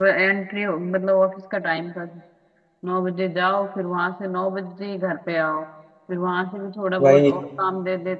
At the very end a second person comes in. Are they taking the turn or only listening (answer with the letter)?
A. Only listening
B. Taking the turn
A